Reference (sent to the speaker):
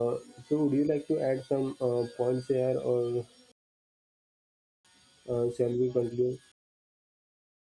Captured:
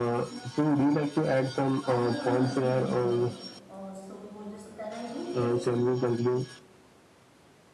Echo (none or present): present